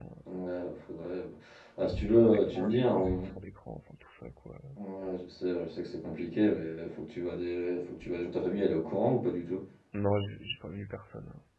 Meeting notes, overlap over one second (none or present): present